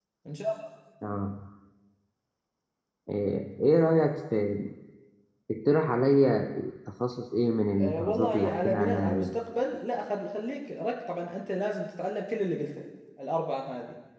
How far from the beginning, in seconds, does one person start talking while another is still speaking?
7.8 s

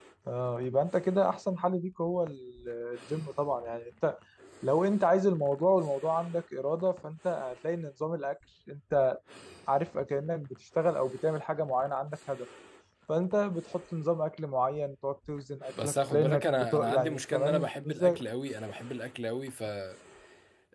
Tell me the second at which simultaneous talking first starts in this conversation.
15.8 s

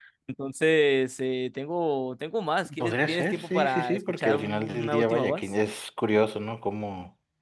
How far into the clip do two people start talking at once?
2.6 s

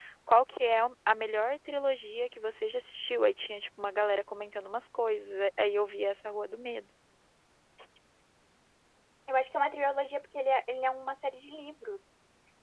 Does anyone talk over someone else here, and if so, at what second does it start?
none

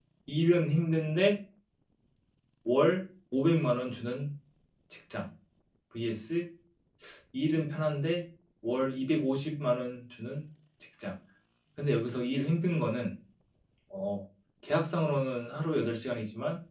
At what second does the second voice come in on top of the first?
none

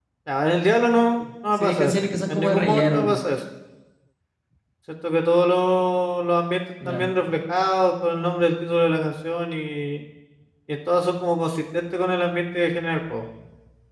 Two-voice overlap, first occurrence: 1.6 s

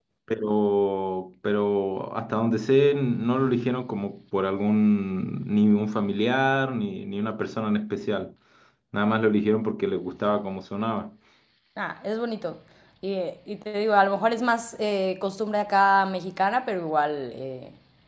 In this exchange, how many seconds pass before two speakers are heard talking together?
none

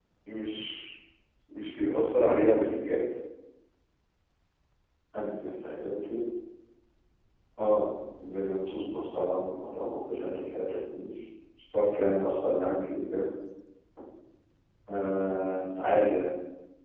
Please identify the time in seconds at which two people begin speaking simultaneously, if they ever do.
none

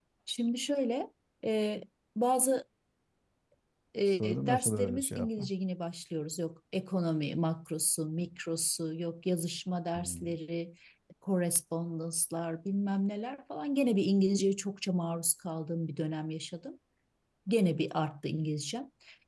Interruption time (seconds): 4.2 s

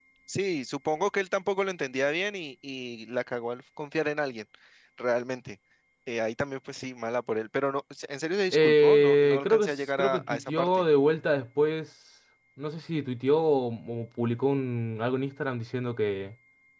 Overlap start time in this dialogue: 8.5 s

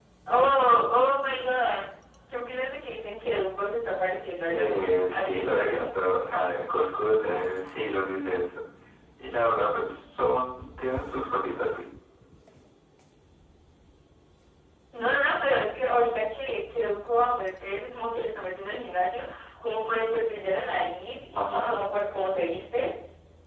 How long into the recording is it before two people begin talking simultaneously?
4.5 s

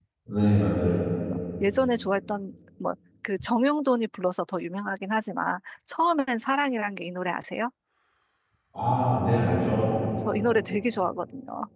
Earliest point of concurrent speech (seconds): none

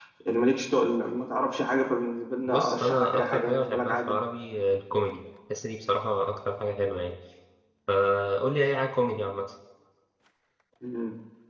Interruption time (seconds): 2.5 s

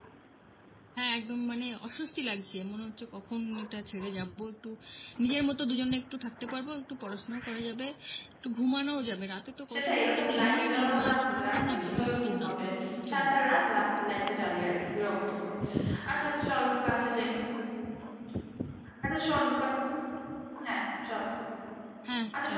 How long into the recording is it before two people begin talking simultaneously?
9.7 s

